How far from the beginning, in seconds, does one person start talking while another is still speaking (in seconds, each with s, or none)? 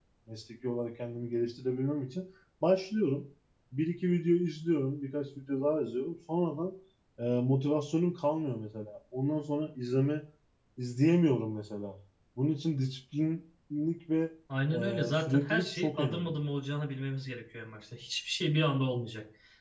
14.7 s